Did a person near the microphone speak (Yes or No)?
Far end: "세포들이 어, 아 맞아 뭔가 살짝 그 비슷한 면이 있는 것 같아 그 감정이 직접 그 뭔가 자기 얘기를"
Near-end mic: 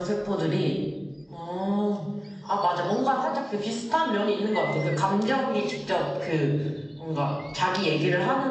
No